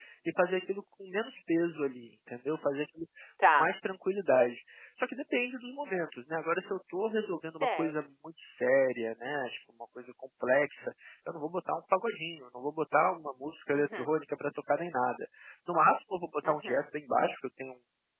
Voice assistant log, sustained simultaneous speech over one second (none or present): none